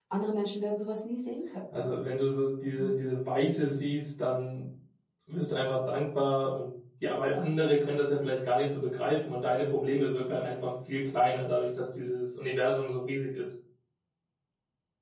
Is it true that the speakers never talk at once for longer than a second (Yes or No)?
Yes